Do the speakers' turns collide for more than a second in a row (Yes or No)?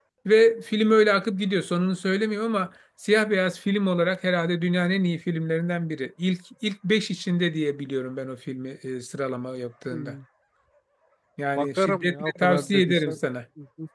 Yes